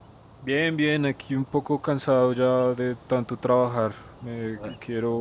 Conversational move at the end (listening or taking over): listening